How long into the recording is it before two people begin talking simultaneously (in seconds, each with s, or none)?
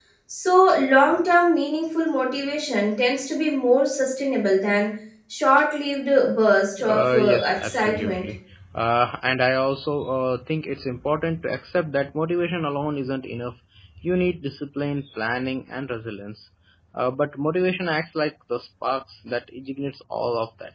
6.8 s